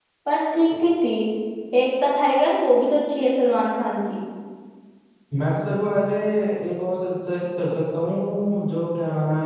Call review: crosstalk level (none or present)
none